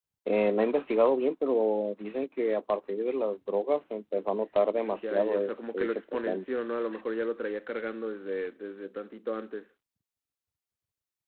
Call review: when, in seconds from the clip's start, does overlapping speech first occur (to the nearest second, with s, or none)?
5 s